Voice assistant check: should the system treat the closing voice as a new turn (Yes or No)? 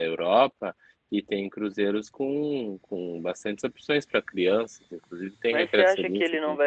Yes